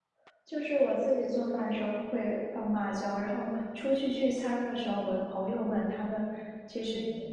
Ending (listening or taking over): listening